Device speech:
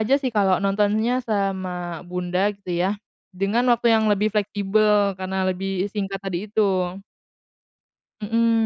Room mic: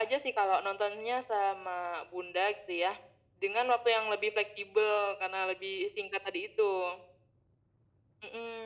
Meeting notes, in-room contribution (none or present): none